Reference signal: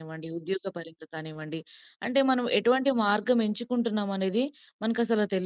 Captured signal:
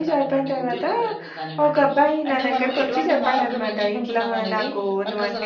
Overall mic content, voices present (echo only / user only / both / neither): both